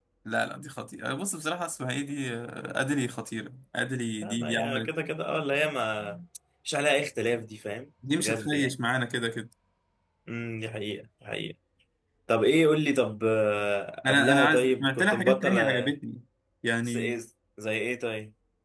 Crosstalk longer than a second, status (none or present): present